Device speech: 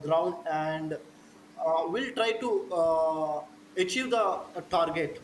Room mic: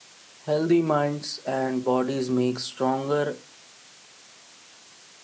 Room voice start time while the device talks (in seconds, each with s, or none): 0.4 s